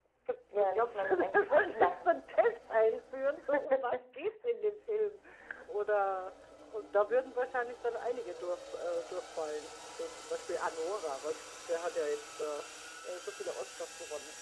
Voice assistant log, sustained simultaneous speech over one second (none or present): present